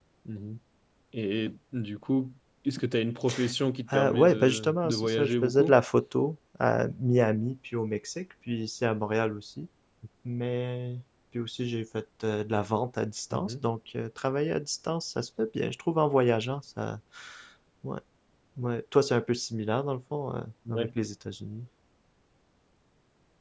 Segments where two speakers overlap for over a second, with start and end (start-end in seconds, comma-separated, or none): 3.9-5.7